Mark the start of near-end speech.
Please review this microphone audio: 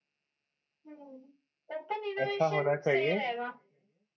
2.2 s

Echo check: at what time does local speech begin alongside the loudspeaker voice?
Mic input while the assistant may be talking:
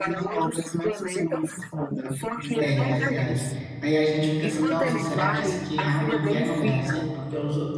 2.6 s

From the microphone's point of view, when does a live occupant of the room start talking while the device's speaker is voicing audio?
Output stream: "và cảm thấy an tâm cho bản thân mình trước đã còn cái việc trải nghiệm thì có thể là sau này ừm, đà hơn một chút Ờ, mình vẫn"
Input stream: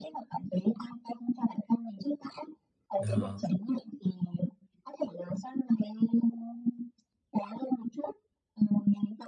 3.0 s

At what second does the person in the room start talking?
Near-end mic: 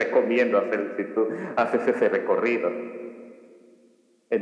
none

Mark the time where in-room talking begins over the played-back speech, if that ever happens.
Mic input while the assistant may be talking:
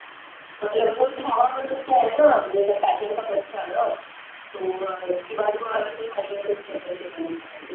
none

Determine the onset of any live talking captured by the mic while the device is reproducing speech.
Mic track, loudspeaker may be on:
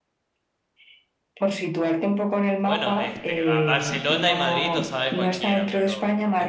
2.6 s

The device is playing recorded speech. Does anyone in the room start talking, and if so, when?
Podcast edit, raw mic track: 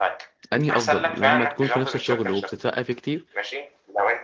0.5 s

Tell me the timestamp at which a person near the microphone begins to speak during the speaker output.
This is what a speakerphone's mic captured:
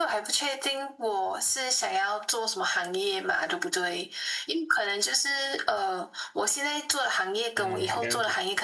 7.5 s

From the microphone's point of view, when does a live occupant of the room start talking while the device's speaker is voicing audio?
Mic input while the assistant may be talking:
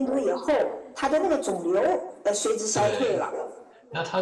2.7 s

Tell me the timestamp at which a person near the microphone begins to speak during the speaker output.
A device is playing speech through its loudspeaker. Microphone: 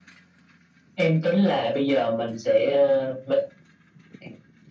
none

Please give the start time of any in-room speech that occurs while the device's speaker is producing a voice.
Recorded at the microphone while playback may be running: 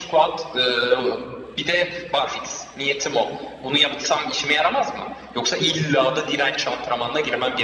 none

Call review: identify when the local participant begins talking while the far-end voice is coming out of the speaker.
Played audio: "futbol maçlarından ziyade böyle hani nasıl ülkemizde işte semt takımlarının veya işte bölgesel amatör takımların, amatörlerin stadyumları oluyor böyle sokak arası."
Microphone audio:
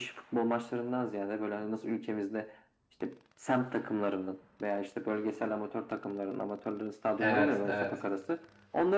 7.2 s

